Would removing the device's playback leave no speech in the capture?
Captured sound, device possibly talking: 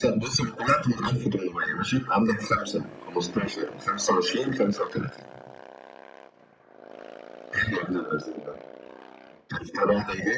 Yes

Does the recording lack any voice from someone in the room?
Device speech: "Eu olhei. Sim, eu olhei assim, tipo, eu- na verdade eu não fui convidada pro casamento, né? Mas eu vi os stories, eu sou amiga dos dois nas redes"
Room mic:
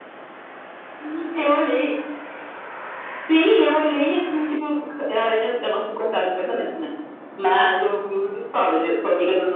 Yes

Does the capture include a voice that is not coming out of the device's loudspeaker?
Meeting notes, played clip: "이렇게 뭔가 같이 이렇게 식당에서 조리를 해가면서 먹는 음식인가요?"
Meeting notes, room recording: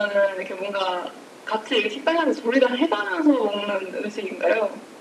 No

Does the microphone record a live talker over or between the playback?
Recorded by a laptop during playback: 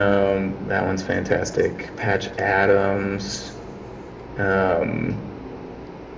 No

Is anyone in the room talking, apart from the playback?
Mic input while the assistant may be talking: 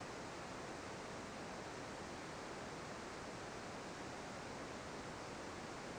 No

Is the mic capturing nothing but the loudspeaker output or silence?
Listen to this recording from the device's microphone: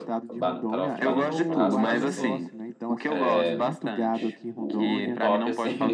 No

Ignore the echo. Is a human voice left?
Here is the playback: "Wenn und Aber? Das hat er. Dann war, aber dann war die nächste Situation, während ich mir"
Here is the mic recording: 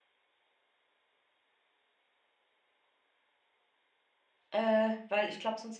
Yes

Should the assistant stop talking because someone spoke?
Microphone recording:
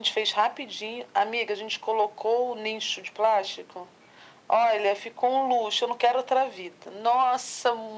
No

